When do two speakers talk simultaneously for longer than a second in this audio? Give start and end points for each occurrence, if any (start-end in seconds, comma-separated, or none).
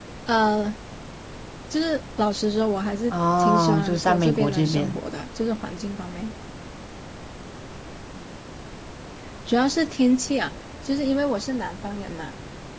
3.1-5.0